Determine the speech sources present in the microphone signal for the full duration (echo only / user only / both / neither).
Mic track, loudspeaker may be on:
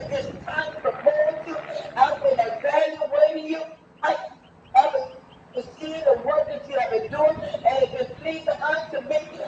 echo only